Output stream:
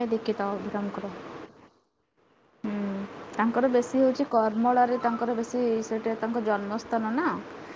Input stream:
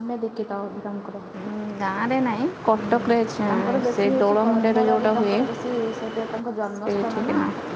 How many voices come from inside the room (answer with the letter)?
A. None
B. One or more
B